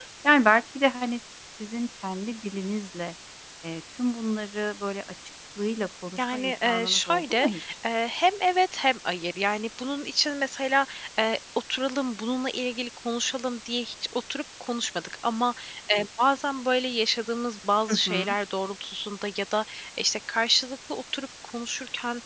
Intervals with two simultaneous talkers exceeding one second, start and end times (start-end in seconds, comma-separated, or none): 6.2-7.5